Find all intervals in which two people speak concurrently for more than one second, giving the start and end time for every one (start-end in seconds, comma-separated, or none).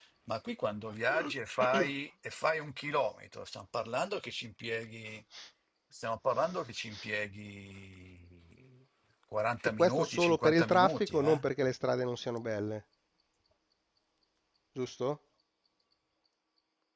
9.8-11.4